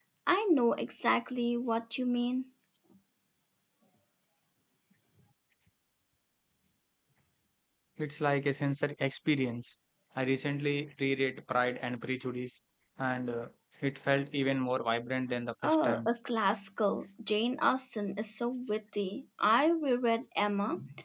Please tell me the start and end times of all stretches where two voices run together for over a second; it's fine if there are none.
none

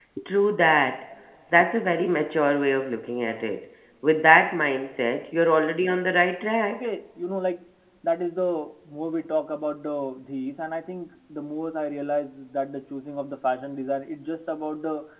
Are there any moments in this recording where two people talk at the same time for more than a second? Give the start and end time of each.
none

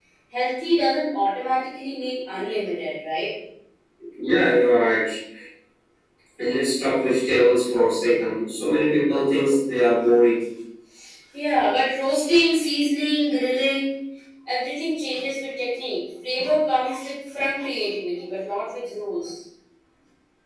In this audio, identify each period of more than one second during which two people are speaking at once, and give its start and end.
none

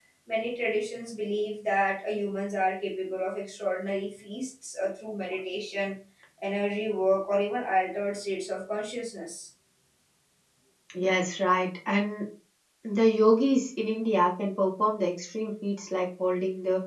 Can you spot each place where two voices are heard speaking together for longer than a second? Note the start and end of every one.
none

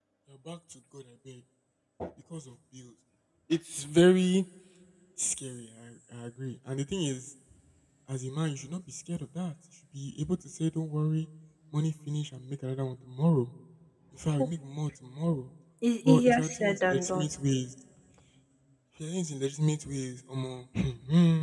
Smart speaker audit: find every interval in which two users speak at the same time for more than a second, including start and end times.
16.1-17.3

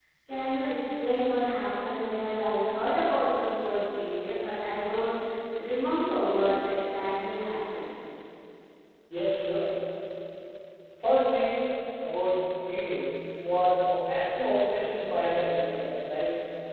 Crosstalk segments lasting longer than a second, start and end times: none

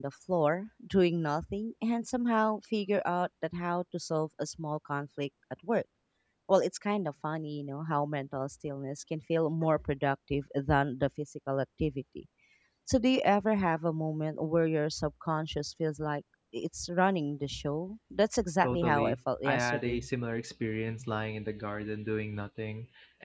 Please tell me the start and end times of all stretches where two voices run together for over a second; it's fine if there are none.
18.6-20.0

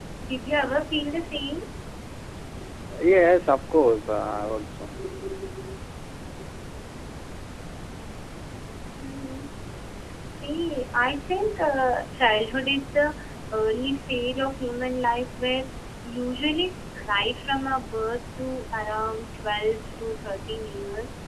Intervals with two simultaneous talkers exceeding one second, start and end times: none

